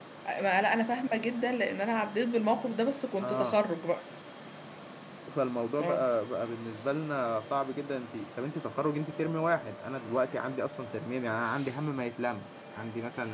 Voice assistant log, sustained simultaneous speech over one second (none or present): none